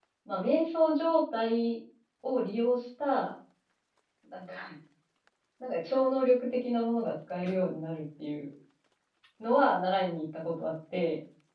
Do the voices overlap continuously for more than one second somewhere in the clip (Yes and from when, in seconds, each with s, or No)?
No